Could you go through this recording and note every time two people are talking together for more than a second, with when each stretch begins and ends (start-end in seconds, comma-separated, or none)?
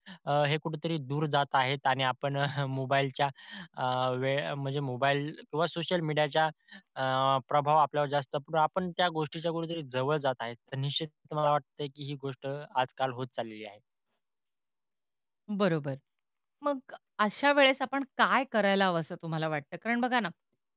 none